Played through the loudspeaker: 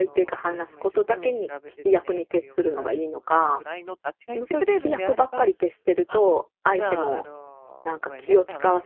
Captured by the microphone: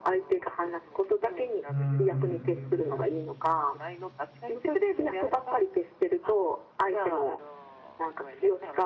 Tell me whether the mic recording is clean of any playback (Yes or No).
No